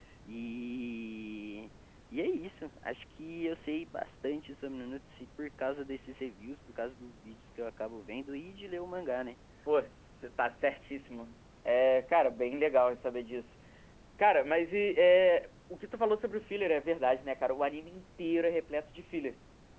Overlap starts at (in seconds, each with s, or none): none